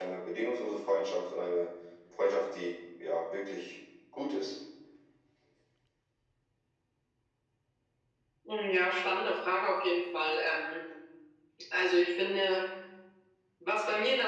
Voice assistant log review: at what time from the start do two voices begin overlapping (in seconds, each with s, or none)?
none